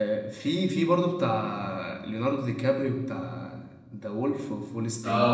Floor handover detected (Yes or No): Yes